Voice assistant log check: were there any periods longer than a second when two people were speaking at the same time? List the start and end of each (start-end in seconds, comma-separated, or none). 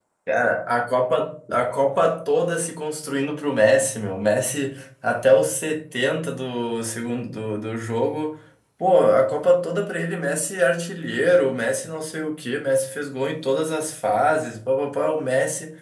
none